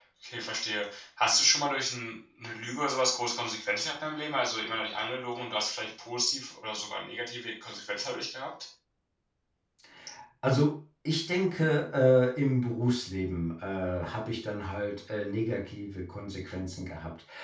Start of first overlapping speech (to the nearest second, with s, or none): none